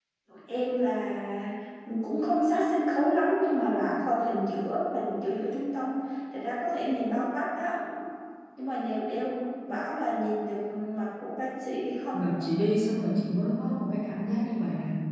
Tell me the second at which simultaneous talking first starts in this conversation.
none

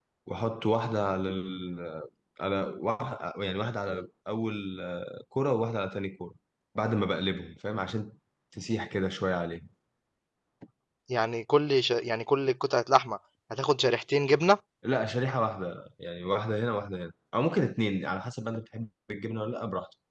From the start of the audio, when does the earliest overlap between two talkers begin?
none

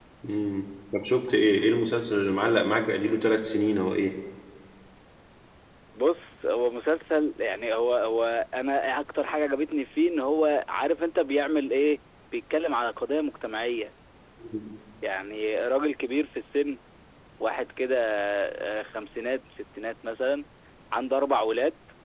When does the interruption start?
none

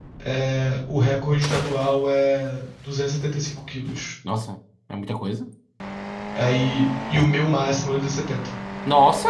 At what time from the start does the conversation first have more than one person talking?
none

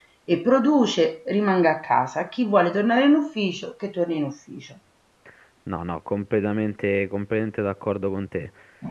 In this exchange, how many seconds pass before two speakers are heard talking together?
none

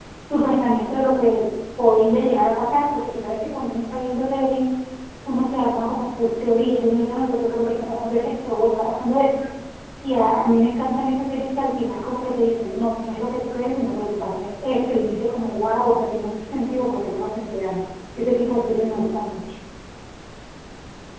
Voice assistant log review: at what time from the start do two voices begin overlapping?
none

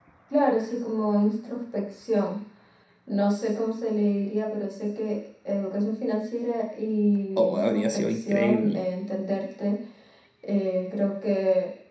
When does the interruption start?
7.4 s

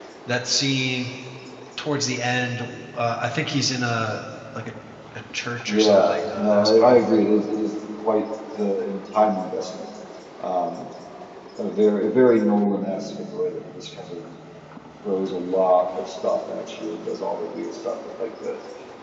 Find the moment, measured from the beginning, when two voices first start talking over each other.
5.7 s

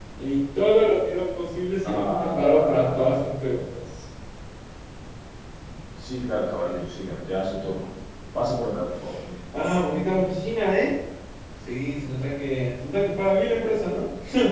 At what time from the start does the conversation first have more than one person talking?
1.8 s

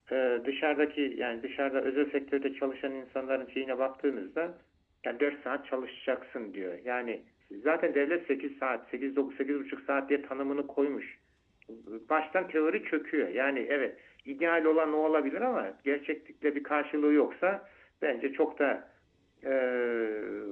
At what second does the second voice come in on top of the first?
none

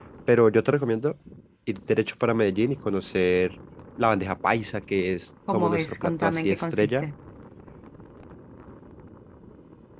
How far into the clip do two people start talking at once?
5.5 s

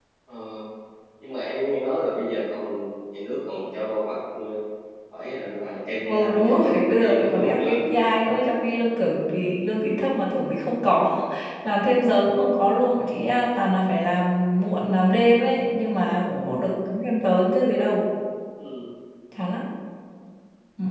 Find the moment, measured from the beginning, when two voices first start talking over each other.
6.0 s

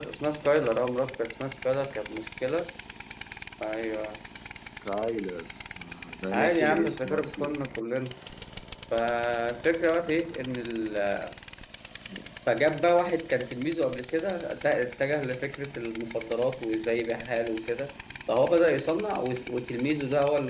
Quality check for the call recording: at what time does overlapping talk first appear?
6.3 s

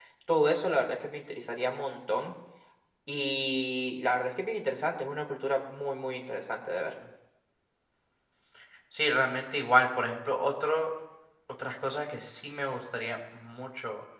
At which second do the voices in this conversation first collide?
none

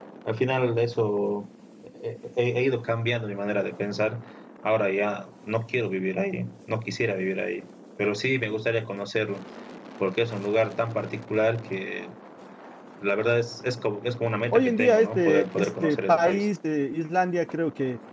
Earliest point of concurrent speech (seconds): 14.5 s

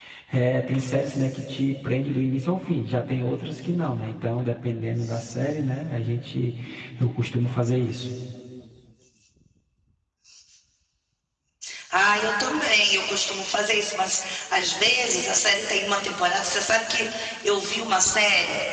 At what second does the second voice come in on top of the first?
none

